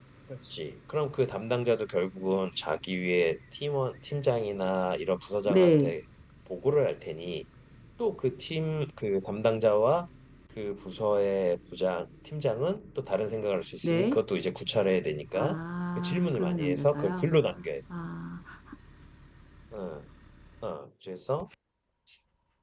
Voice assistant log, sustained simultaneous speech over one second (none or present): present